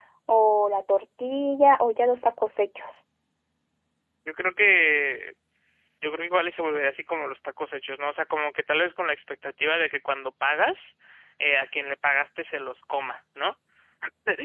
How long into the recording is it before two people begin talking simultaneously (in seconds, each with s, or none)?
none